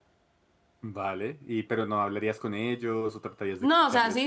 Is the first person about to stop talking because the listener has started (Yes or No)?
Yes